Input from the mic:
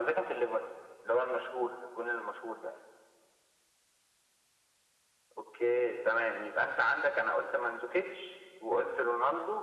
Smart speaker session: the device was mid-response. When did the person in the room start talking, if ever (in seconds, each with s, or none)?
none